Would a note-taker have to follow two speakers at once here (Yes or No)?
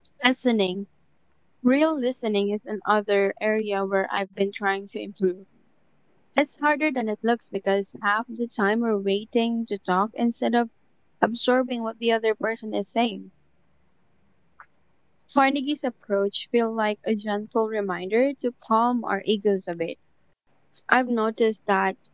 No